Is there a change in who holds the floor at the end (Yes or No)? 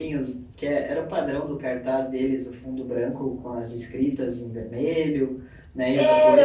No